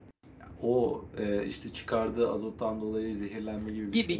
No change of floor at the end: No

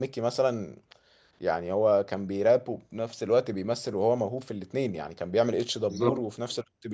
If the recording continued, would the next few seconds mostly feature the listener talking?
No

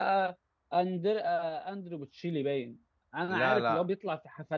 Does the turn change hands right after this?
No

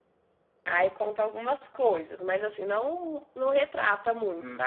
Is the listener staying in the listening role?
No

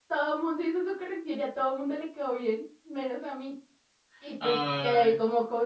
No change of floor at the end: Yes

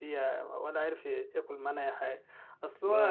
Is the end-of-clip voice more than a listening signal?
No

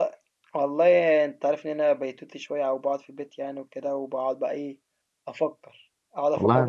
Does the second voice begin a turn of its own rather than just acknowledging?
No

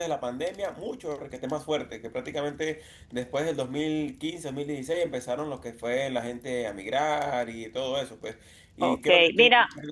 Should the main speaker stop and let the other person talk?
Yes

